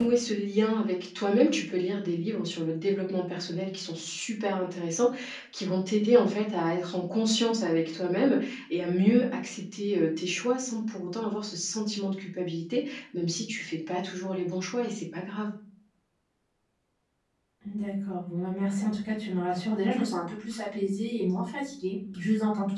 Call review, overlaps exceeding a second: none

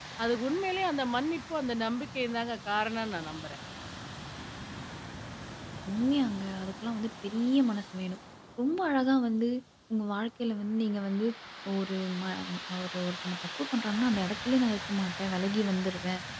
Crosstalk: none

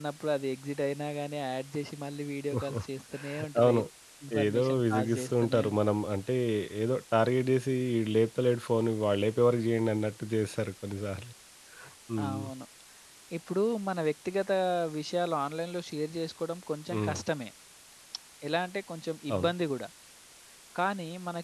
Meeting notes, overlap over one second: present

